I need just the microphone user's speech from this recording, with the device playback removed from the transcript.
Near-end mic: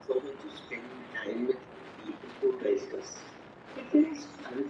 none

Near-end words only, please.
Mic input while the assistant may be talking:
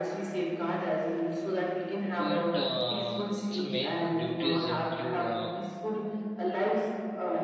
But uh, its main duties include uh,

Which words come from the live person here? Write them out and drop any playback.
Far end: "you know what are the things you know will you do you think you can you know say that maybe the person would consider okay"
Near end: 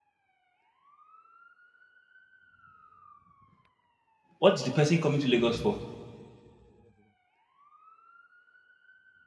what's the person coming to Lagos for?

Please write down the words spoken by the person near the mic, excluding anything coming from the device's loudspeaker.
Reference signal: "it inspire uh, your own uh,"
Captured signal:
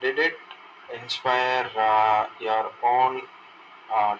none

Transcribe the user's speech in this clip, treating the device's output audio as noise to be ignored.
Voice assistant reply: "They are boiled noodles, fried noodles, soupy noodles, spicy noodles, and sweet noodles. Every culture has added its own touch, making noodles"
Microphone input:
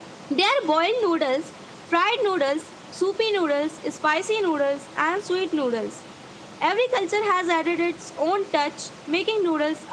none

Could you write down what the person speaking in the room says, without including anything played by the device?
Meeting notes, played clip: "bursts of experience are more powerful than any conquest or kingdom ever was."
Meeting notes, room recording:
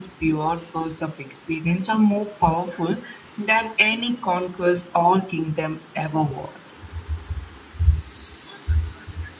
none

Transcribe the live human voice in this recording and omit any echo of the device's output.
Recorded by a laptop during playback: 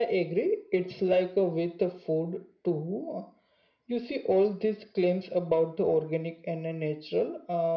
none

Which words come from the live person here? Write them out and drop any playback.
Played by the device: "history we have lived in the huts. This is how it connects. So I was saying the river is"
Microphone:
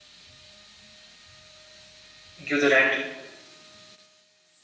give the rent

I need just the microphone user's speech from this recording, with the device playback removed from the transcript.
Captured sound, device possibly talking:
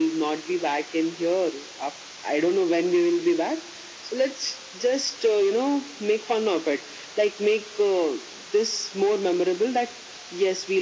none

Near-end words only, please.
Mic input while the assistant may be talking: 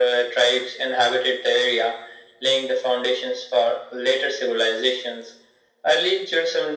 none

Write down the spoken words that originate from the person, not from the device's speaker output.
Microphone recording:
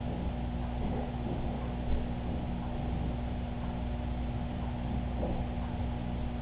none

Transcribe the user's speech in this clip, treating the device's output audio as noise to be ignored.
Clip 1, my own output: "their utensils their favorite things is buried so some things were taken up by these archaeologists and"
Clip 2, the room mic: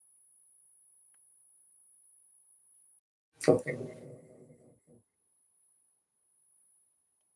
okay

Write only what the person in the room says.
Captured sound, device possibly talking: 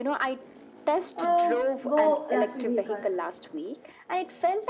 uh, go electric vehicle.

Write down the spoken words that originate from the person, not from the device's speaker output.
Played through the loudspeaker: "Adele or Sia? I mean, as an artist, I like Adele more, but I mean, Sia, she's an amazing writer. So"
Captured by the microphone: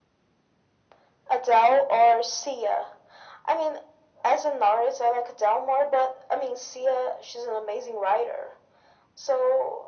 none

